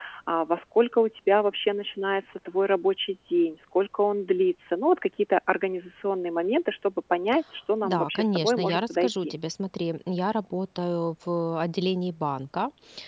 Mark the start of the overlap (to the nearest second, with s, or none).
8 s